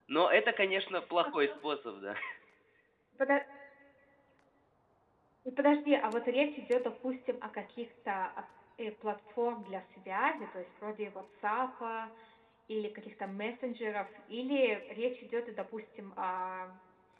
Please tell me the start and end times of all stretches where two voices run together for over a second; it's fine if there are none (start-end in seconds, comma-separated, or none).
none